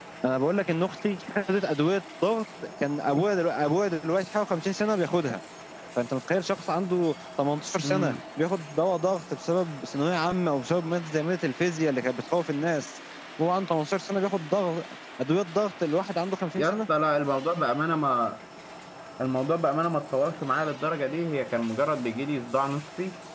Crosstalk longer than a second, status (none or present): none